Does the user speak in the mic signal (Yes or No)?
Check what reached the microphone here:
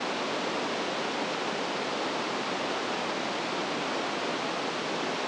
No